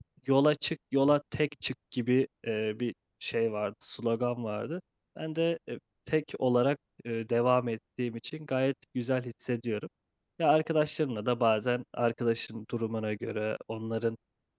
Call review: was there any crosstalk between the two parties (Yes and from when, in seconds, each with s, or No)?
No